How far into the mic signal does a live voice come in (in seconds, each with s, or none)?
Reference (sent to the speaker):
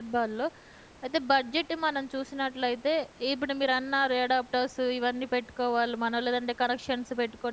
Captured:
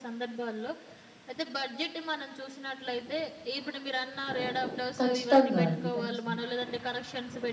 5.0 s